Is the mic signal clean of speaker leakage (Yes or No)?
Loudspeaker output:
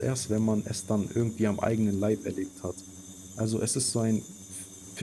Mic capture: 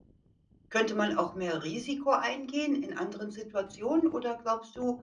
Yes